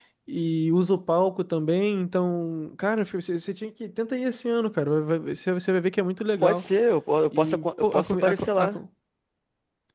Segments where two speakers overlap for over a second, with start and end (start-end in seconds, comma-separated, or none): 7.3-8.8